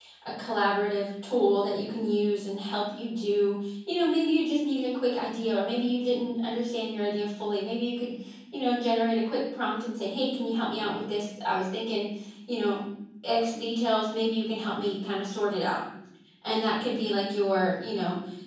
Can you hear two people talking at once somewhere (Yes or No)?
No